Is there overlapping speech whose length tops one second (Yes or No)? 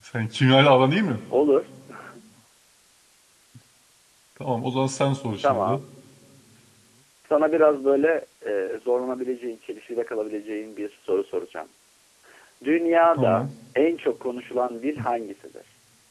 No